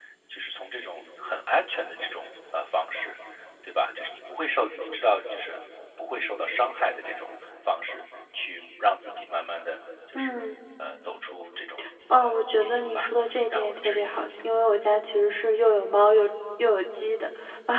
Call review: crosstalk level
present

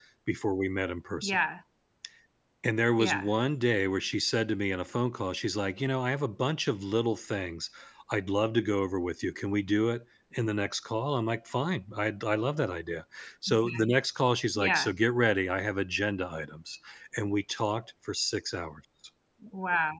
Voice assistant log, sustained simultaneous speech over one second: none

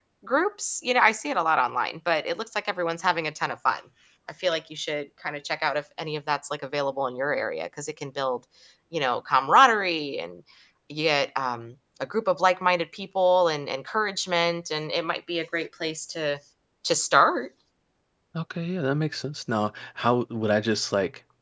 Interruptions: none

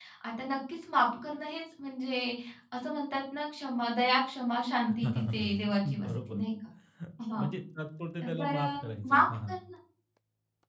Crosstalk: present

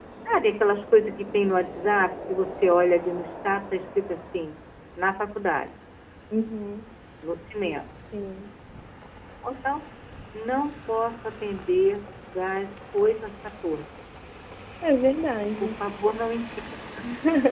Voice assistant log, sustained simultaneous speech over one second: none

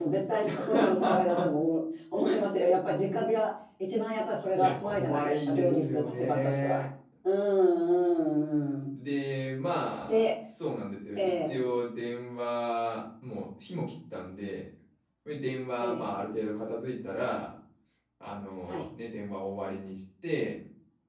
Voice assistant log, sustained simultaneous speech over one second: present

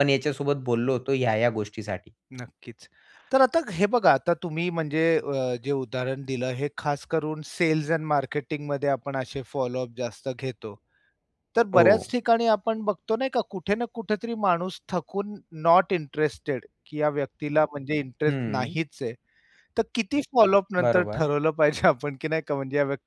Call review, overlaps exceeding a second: none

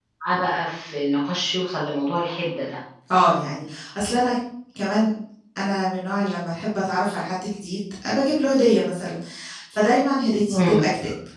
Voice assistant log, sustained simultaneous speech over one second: none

